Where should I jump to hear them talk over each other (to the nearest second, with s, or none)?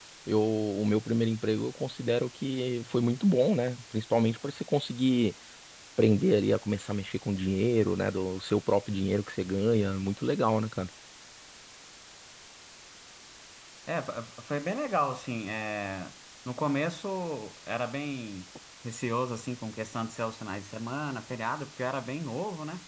none